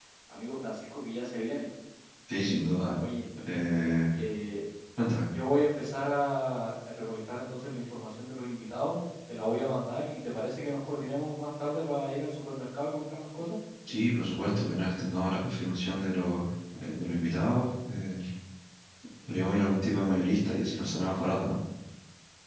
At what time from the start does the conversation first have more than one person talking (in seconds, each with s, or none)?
none